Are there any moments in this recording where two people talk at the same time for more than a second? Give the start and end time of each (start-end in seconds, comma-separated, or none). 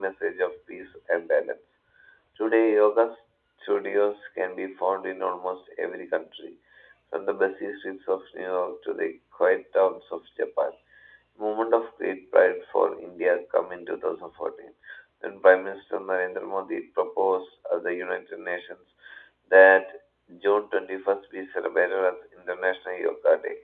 none